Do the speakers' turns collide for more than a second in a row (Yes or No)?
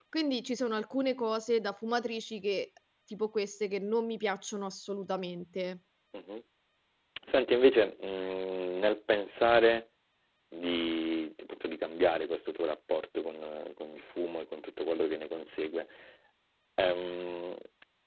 No